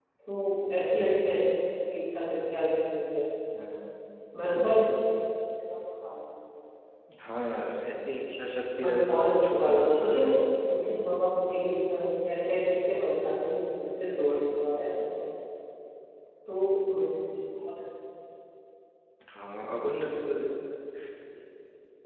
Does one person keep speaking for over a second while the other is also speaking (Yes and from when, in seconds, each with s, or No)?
Yes, from 8.6 s